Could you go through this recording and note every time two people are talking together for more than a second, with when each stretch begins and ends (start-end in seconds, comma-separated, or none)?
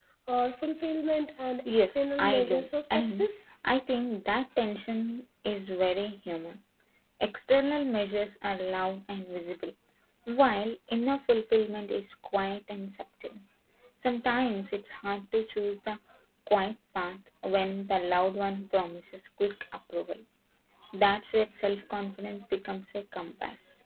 1.8-3.3